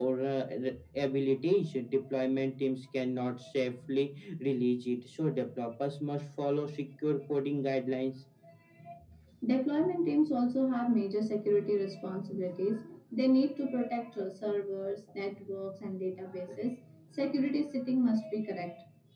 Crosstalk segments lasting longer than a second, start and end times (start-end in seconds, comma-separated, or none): none